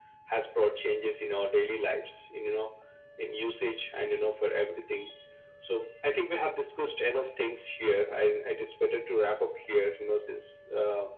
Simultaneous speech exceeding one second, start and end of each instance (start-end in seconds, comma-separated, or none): none